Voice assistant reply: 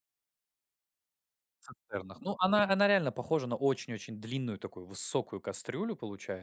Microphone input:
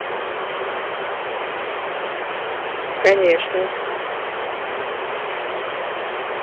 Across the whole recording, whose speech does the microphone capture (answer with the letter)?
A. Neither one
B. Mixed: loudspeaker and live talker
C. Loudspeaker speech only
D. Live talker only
D